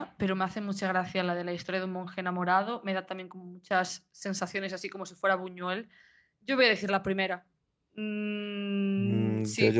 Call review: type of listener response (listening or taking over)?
taking over